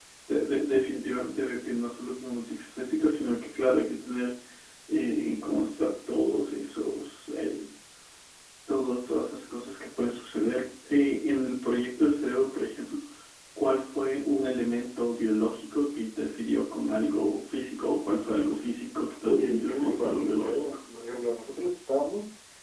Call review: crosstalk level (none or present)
present